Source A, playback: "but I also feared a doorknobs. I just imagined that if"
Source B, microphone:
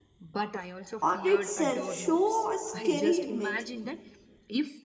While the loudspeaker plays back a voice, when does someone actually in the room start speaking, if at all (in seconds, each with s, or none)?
1.0 s